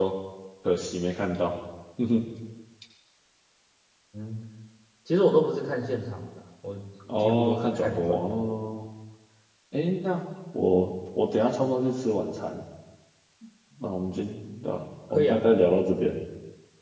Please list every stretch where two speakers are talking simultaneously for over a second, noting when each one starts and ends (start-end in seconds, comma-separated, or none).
7.2-8.6